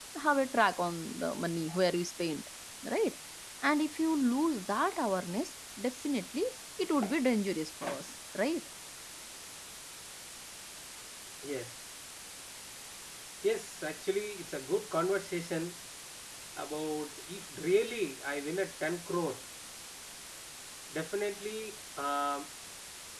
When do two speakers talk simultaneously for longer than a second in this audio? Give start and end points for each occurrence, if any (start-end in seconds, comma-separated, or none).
none